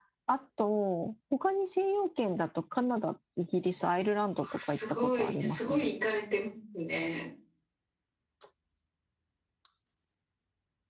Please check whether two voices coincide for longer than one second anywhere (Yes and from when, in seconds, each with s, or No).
Yes, from 4.4 s